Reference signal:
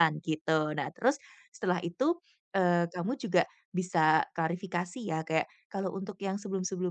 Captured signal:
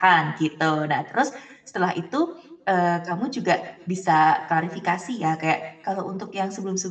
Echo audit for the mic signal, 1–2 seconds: echo only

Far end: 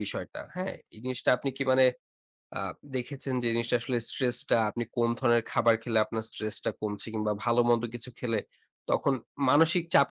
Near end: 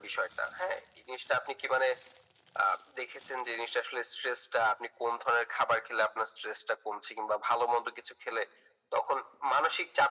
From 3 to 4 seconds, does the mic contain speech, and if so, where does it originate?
echo only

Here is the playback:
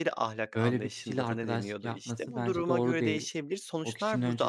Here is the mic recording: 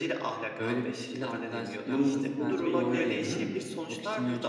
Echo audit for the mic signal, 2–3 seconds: both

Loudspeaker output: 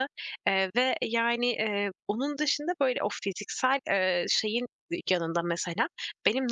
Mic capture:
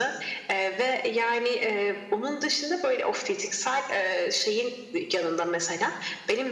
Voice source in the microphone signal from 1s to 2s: echo only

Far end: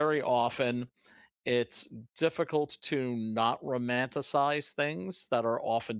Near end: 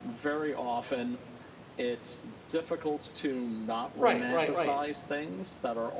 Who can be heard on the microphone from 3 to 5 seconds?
both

